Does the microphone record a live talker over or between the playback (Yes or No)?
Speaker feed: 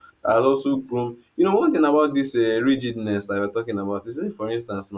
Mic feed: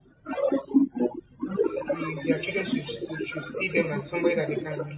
Yes